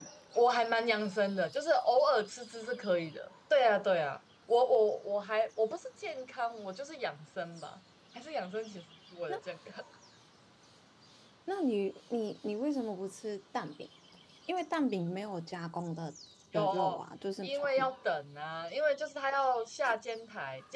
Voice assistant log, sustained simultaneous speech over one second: none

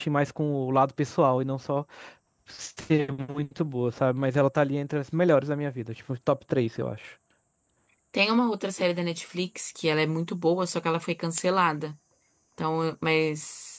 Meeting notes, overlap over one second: none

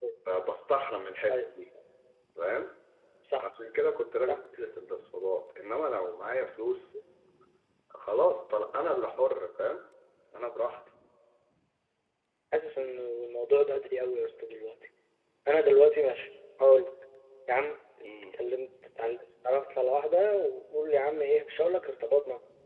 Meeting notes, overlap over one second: none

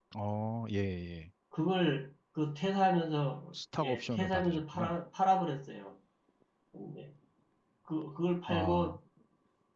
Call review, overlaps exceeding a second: present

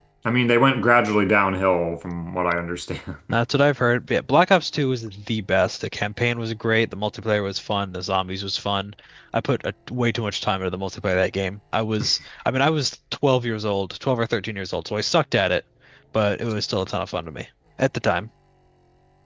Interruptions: none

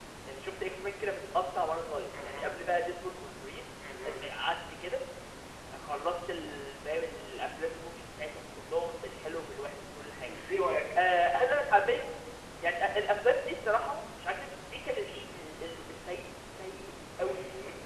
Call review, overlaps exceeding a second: none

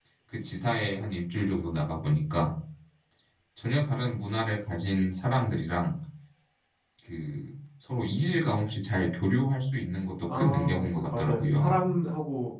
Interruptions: present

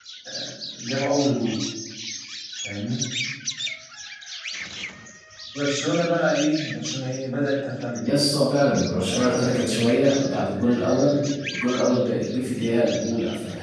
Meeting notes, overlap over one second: present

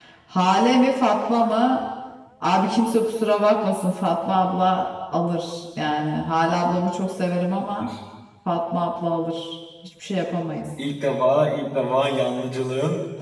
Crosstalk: none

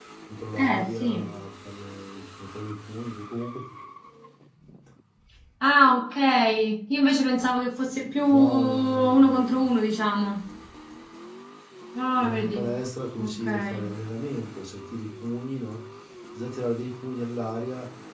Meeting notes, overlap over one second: present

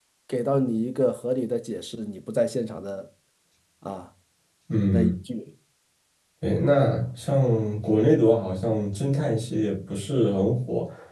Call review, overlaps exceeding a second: none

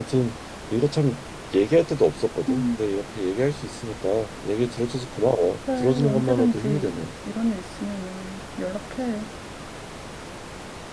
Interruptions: present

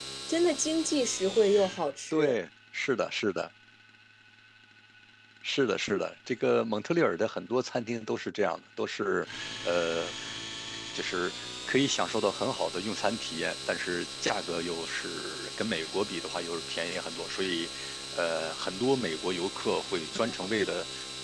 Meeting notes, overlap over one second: none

